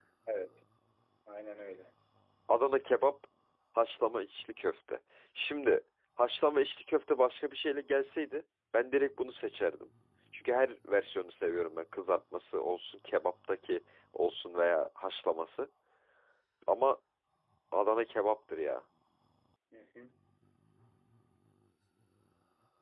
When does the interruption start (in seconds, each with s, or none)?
none